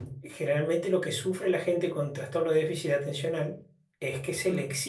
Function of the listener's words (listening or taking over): listening